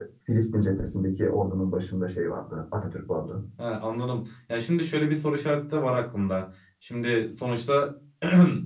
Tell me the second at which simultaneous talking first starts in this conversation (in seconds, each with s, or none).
none